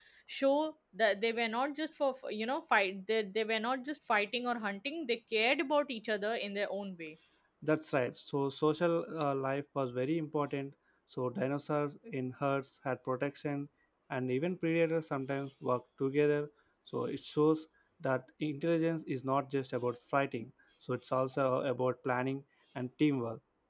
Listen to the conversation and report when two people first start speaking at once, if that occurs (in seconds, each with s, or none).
none